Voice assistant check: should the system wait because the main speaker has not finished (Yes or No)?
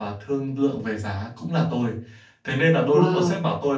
Yes